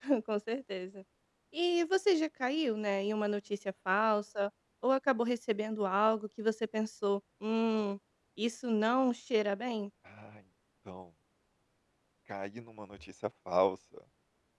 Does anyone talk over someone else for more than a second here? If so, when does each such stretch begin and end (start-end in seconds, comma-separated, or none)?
none